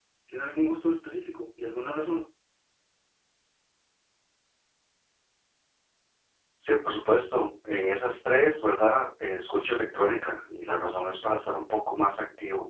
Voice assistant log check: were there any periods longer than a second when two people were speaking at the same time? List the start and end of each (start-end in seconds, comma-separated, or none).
none